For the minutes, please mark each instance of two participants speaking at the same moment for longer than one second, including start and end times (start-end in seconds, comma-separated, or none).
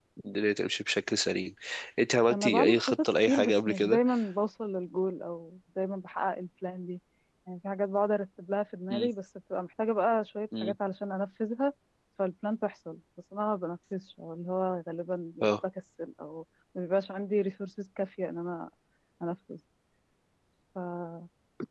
2.3-4.0